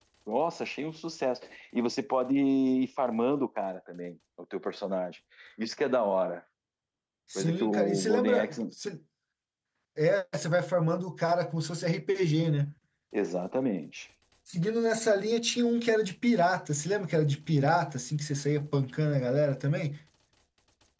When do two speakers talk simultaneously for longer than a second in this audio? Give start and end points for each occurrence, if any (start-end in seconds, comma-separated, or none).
7.4-8.6